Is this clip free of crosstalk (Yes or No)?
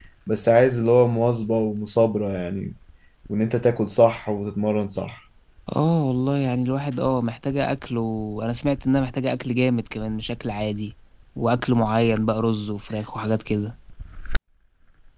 Yes